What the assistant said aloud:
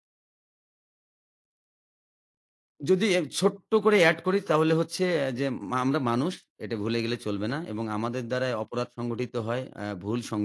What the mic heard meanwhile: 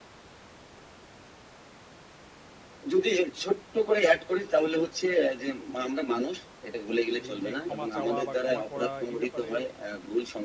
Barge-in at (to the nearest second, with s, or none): 7 s